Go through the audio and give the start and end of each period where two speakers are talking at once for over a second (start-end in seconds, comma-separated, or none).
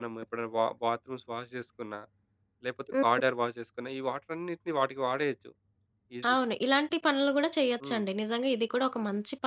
none